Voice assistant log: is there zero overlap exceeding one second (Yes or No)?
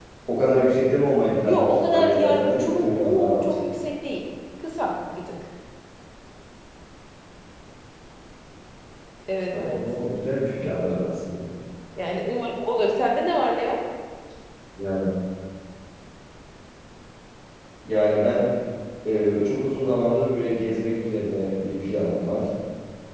No